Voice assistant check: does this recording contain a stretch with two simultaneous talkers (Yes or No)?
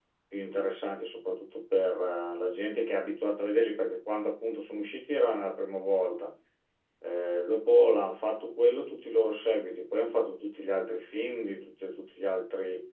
No